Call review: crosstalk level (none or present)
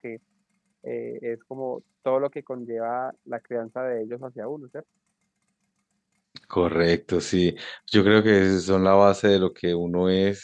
none